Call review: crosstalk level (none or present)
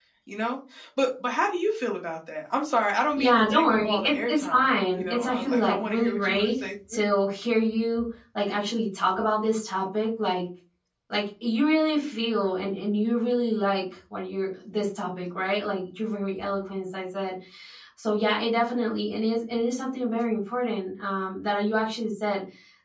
present